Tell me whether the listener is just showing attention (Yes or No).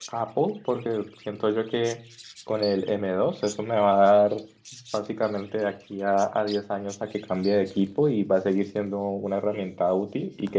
Yes